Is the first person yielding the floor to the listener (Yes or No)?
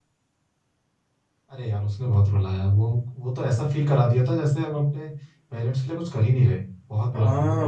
Yes